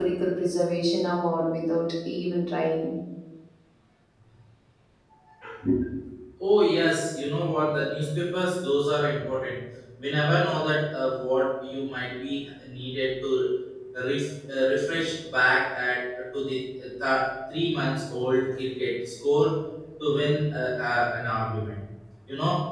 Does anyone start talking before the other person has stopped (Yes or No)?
No